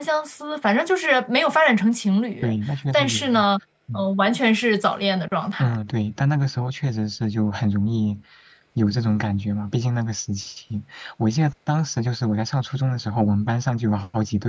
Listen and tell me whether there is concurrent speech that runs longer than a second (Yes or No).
No